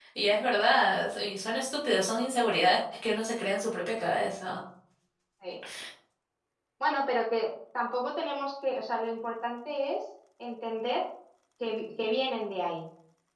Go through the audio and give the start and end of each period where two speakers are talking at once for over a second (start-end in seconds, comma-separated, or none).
none